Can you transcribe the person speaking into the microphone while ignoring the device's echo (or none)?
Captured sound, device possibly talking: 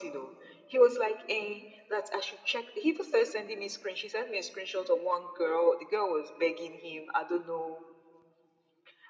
none